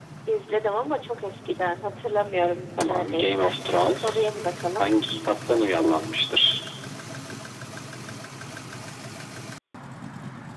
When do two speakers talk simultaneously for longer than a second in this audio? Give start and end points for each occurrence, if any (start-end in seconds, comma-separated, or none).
2.8-4.3